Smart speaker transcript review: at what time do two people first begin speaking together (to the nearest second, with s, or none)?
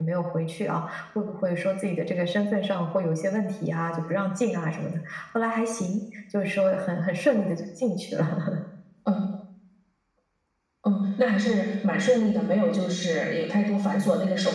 none